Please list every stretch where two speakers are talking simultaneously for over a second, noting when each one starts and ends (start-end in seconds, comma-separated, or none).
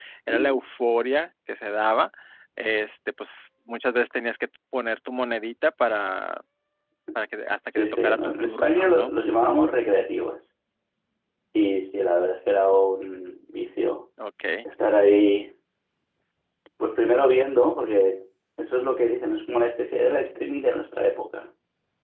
7.7-9.2